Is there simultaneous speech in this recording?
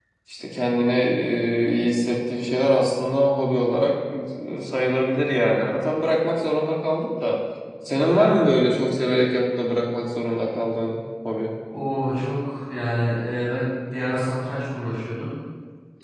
No

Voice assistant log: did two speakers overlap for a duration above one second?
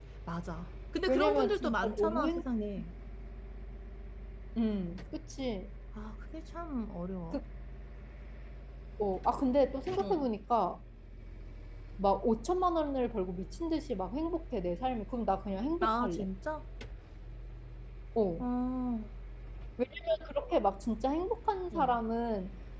Yes, from 1.1 s

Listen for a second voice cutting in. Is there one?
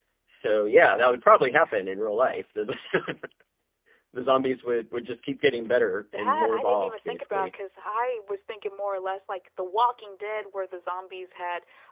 Yes, from 6.1 s

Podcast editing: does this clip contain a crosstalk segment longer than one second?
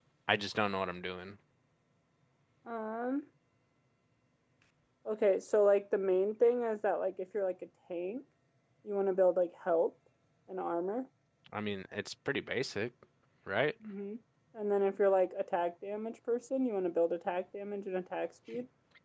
No

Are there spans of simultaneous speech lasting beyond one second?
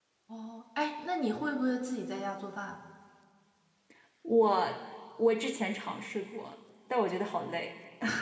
No

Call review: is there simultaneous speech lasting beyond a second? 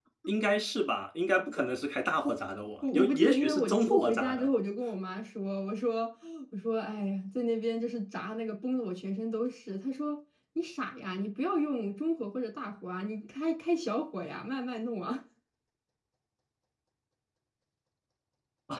Yes, from 2.8 s

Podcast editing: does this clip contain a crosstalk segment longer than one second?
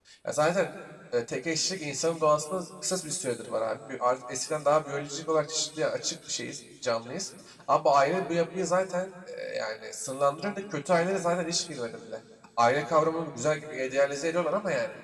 No

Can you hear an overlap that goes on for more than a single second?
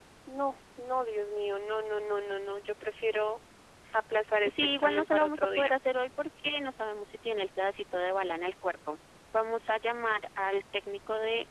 Yes, from 4.4 s

